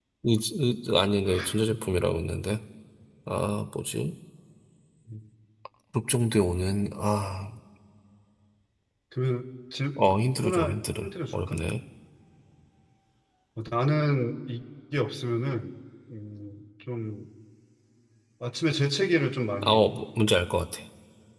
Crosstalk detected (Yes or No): Yes